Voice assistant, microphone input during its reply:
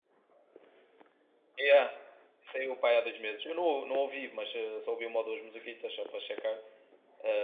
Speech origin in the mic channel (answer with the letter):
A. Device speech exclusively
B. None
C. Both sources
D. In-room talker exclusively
D